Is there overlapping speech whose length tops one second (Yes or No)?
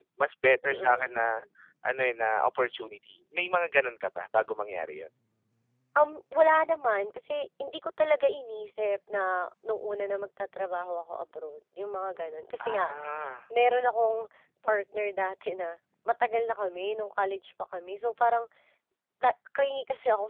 No